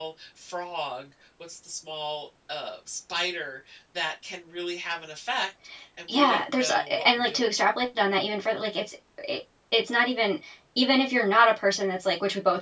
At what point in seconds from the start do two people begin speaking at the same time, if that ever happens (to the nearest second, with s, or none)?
6 s